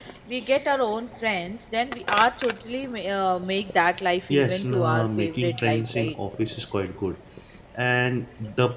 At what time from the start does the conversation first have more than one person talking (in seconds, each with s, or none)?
4.3 s